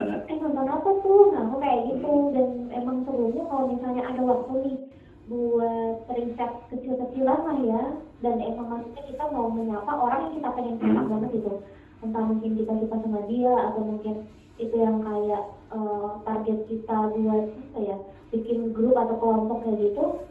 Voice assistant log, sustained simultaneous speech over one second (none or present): none